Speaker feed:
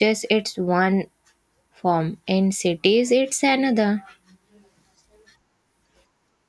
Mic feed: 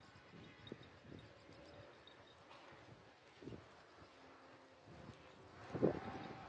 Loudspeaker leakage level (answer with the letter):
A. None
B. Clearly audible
A